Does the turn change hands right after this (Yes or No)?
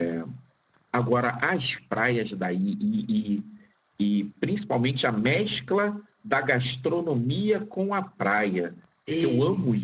No